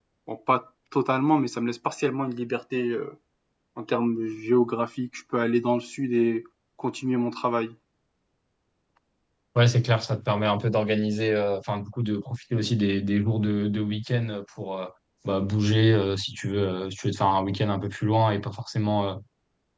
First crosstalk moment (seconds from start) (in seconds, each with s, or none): none